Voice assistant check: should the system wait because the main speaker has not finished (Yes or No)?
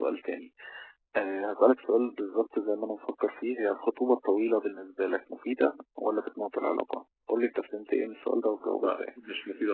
No